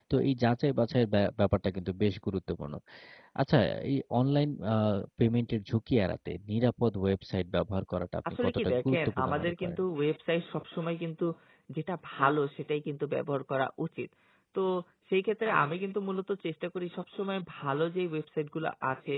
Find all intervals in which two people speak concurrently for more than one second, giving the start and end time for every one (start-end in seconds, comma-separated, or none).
8.3-9.8